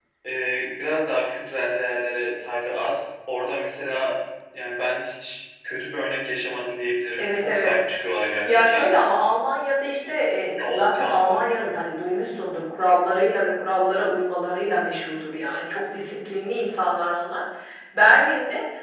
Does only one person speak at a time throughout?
No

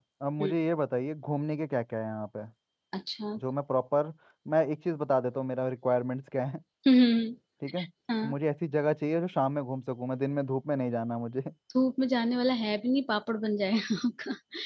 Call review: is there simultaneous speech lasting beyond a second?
No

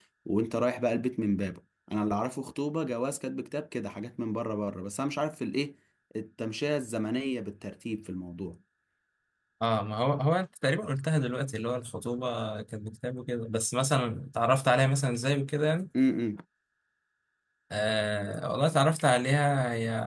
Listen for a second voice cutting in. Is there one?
No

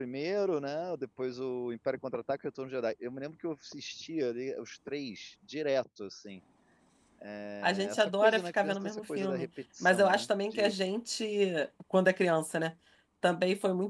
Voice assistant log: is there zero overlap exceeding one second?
No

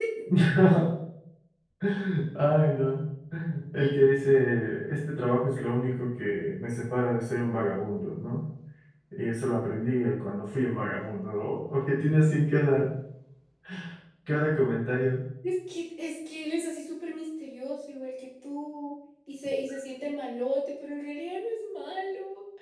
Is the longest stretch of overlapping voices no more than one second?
Yes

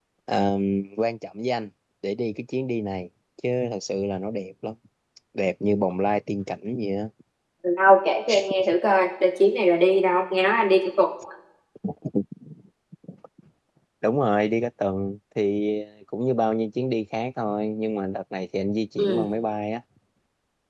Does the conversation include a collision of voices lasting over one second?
No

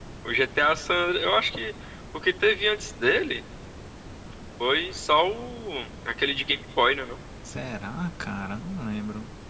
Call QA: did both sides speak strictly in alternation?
Yes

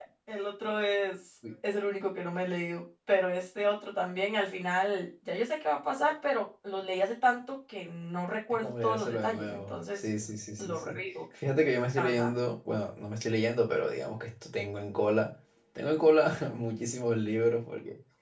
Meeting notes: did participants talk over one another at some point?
Yes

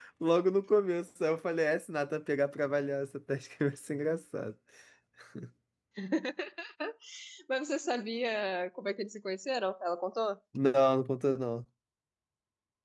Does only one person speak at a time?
Yes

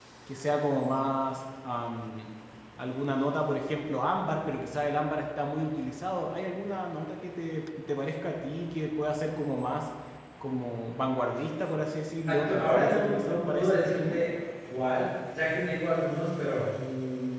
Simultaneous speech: Yes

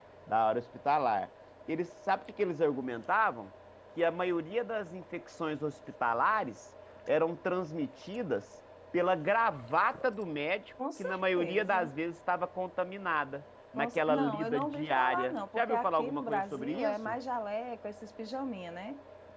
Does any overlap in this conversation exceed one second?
Yes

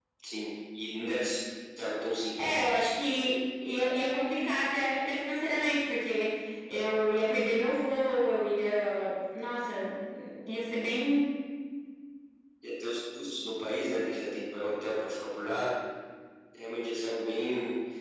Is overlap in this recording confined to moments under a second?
Yes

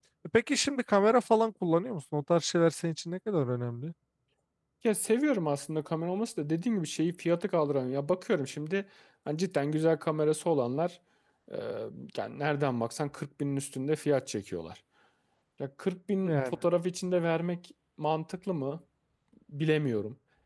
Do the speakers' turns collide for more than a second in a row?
No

